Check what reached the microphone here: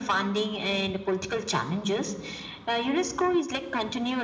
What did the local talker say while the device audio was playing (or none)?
none